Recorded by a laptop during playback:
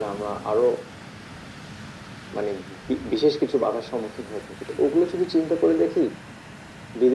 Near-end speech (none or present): none